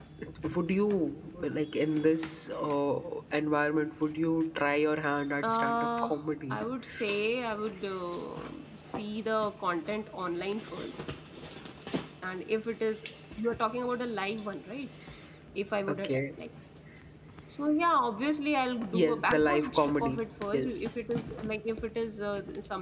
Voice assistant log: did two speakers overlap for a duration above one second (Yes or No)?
Yes